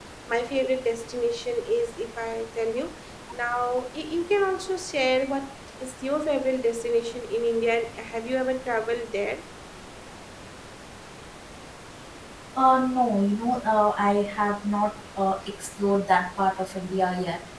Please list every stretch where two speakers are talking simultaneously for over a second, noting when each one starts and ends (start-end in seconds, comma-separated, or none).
none